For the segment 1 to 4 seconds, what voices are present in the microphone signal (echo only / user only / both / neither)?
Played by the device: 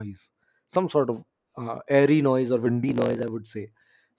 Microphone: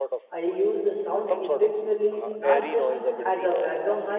both